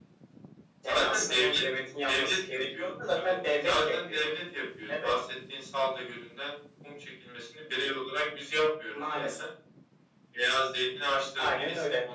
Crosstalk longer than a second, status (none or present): present